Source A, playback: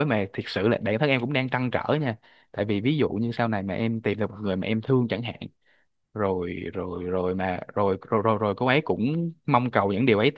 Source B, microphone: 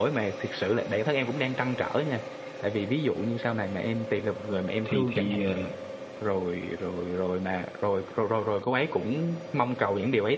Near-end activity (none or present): present